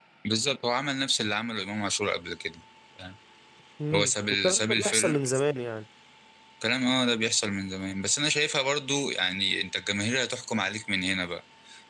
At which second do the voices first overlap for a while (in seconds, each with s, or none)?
3.9 s